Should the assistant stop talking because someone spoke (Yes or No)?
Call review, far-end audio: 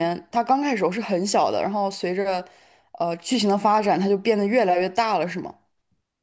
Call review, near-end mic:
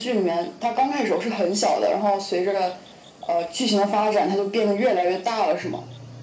No